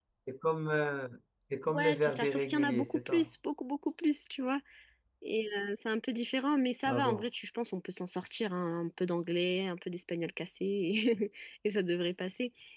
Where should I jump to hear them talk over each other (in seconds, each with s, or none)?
1.7 s